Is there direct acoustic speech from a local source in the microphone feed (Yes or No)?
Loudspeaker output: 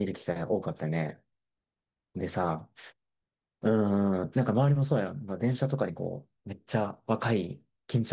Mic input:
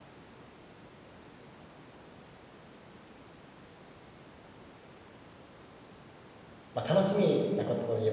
Yes